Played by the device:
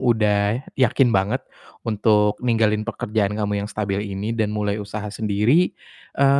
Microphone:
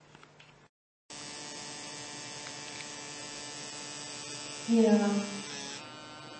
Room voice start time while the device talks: 4.7 s

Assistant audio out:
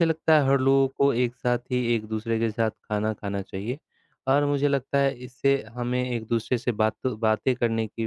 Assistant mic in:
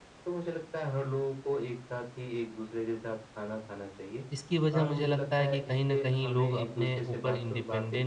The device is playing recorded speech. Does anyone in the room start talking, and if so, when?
4.3 s

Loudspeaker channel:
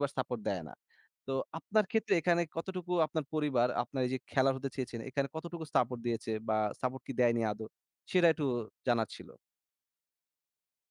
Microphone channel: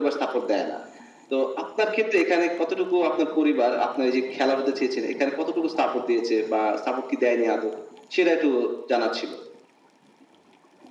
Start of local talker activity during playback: none

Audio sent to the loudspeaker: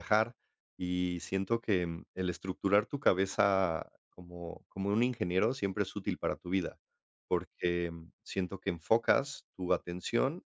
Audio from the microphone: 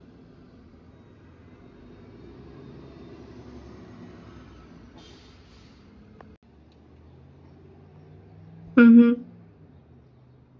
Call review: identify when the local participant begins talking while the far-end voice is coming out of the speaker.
8.8 s

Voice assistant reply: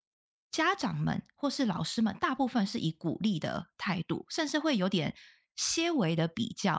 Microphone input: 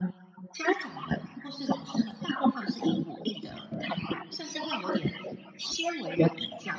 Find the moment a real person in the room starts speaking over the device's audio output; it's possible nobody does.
none

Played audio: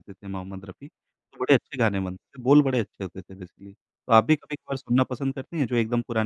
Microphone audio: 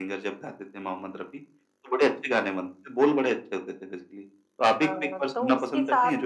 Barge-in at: 4.8 s

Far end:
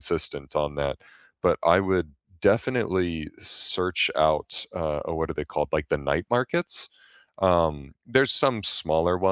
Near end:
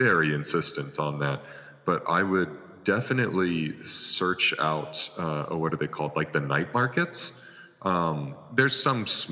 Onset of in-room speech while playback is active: none

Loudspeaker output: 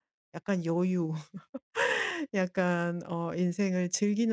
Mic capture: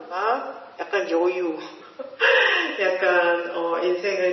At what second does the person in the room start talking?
none

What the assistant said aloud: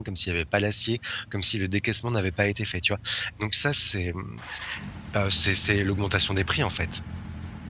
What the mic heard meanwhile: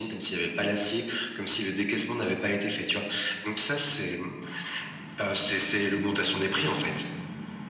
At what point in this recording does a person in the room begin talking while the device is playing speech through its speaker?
none

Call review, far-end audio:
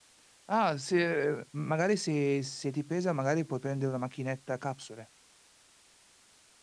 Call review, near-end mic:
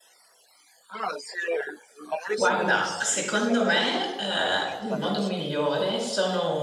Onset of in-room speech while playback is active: 2.3 s

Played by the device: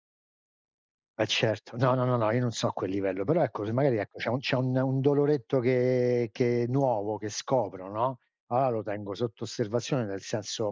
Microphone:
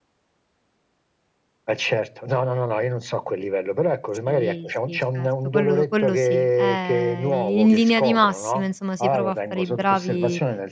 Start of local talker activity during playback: 4.2 s

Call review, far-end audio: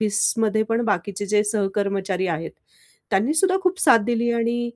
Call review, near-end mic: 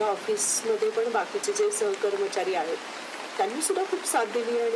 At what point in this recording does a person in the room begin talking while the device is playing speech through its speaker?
none

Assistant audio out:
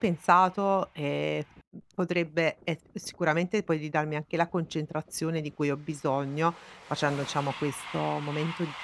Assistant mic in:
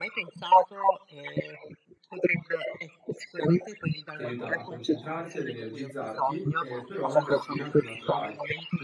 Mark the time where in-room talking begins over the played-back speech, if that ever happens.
4.1 s

